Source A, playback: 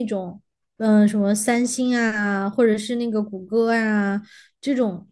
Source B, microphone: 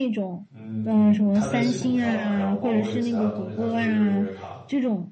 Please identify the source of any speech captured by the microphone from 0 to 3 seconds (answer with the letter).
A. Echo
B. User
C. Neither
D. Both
D